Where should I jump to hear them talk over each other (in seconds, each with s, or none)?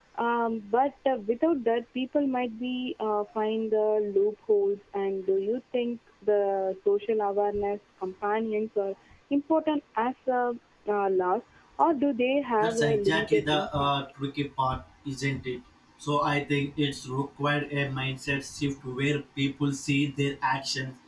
12.6 s